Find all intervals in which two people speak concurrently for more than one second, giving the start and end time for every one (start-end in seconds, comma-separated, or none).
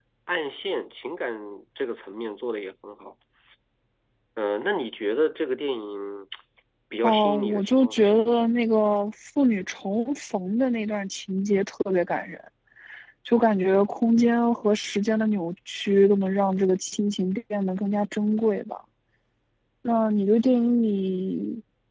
7.0-8.3